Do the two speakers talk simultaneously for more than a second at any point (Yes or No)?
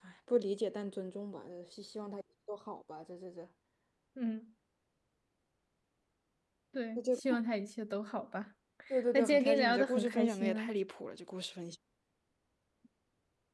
Yes